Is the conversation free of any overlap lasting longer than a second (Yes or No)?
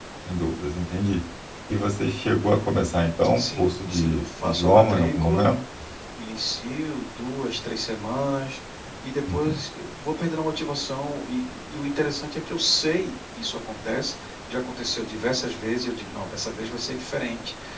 No